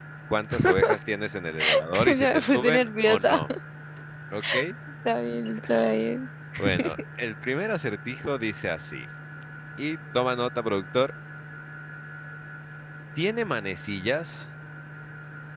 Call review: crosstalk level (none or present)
present